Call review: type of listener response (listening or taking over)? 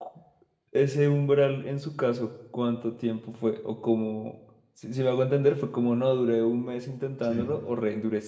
listening